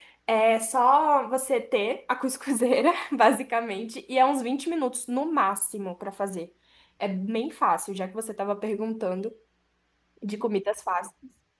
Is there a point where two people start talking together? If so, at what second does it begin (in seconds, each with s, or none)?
none